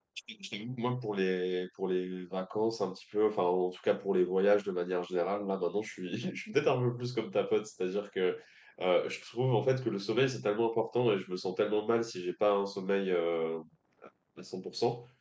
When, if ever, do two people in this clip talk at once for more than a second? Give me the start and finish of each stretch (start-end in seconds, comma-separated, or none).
none